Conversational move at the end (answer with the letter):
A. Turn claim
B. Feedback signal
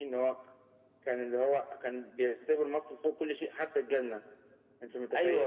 A